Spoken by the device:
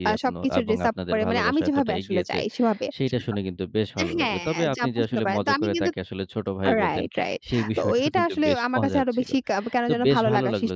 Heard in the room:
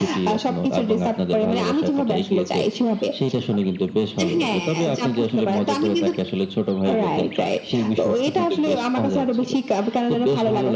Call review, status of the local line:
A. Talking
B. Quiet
B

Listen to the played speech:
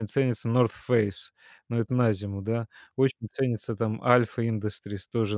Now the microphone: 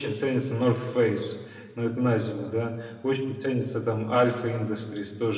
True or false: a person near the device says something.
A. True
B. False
B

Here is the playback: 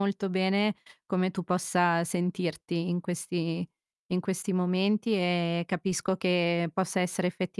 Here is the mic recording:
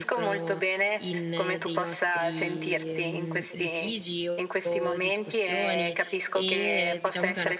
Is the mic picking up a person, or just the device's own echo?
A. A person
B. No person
A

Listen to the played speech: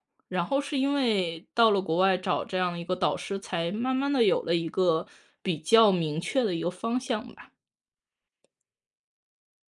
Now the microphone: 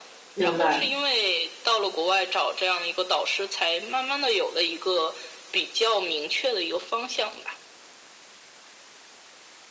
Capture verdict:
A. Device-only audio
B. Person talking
B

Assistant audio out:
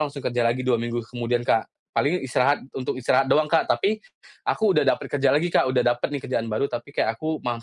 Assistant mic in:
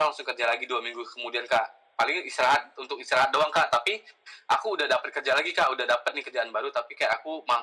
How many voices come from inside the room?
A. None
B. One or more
A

